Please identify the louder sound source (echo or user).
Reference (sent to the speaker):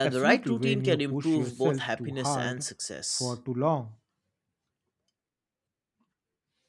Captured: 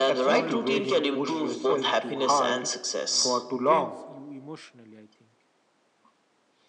echo